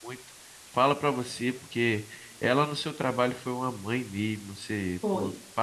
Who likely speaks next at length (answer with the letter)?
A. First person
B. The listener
A